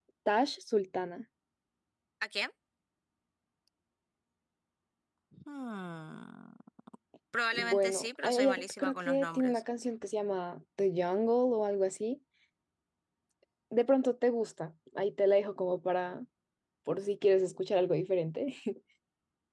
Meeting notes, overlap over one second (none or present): present